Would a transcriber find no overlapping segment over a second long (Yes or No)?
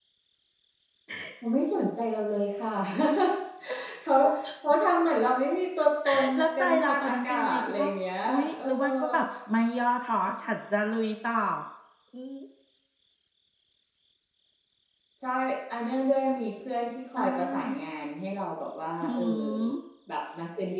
No